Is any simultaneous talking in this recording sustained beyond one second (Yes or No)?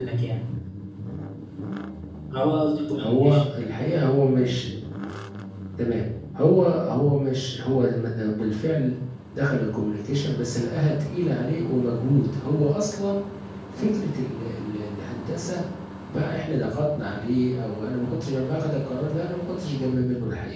No